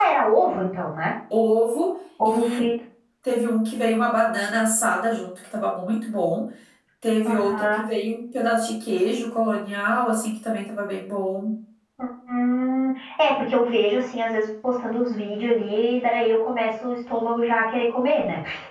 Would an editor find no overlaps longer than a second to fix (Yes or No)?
Yes